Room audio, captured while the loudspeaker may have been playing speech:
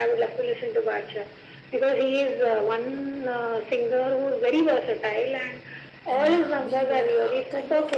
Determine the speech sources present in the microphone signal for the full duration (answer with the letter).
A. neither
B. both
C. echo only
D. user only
B